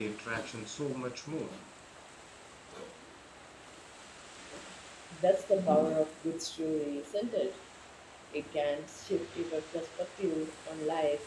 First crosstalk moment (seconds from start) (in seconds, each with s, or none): none